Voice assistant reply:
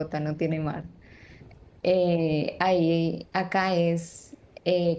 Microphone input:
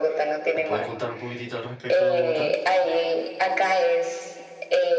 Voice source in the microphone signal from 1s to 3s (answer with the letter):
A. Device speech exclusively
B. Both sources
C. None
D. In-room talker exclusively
B